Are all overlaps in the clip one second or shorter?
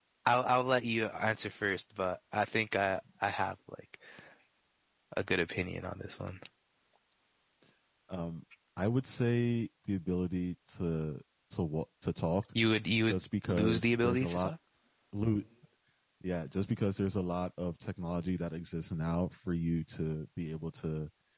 No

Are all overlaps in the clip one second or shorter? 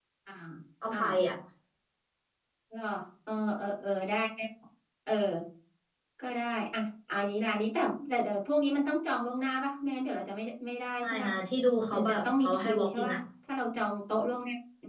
No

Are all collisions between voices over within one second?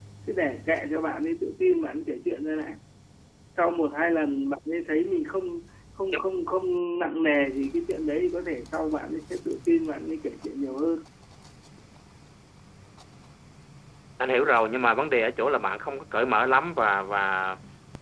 Yes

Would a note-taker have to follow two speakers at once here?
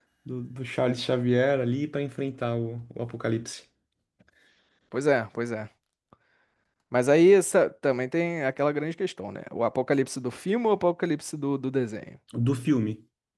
No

